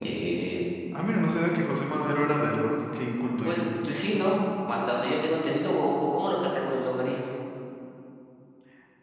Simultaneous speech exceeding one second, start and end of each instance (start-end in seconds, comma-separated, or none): none